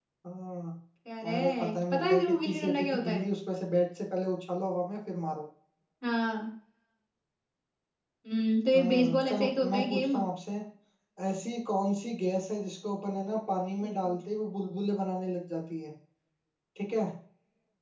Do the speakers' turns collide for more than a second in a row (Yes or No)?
Yes